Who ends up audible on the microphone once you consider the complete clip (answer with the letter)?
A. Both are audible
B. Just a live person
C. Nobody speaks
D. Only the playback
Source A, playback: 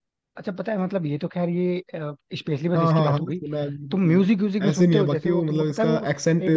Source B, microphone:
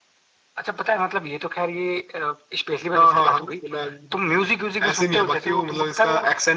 D